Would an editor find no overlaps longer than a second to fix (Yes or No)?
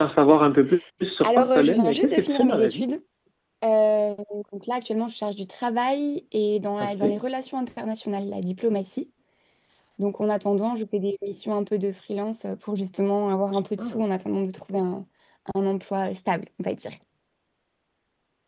No